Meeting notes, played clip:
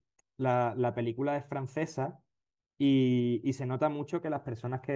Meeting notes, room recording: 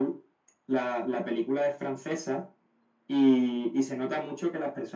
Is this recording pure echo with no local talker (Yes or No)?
Yes